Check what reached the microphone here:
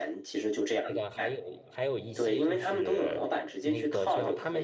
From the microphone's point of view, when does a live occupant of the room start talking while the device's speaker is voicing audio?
1 s

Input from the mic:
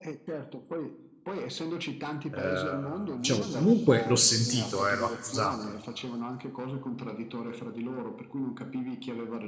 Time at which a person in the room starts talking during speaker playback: 2 s

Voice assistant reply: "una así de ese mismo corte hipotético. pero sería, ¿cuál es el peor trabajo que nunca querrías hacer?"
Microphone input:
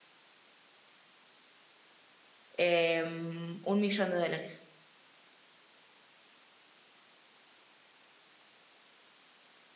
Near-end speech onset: 3 s

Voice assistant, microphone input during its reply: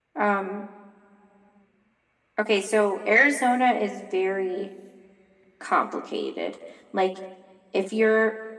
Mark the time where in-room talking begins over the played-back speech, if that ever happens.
none

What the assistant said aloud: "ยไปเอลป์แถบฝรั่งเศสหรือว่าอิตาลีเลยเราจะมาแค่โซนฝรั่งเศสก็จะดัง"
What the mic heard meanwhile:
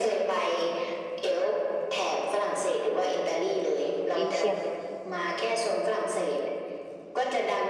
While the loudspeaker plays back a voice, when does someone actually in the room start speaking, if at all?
4 s

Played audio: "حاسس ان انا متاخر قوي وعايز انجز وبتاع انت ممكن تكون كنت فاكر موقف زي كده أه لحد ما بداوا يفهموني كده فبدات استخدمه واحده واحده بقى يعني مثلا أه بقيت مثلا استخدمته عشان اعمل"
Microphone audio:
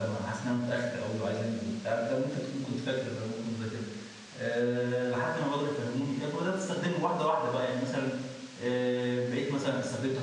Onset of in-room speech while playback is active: none

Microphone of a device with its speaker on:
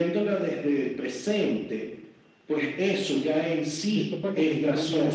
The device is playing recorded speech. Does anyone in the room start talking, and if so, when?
4 s

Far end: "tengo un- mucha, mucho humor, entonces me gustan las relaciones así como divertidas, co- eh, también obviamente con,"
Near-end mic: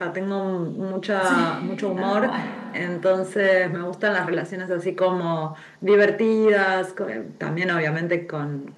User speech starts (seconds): 1 s

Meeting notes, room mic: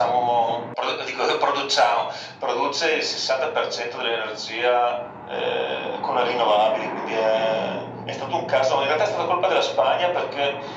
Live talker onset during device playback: none

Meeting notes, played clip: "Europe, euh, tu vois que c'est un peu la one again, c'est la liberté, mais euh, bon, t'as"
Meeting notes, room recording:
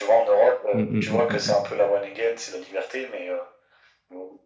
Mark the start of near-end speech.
1 s

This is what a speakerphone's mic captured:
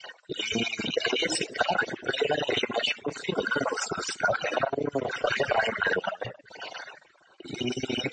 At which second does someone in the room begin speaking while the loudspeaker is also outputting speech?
none

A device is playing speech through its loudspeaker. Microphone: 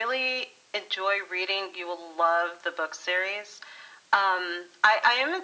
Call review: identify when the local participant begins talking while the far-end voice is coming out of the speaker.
none

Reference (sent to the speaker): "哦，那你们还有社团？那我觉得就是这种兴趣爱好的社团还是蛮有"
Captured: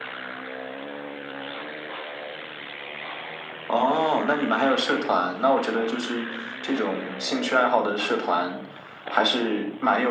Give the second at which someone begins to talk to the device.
none

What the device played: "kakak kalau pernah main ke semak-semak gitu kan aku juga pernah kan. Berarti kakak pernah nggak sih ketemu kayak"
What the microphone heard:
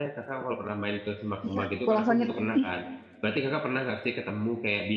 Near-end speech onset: 1 s

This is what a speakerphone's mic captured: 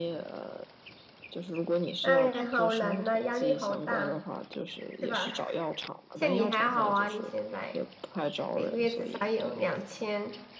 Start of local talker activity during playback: 2 s

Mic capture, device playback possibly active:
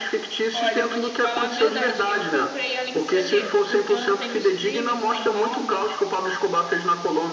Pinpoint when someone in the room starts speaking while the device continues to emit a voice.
1 s

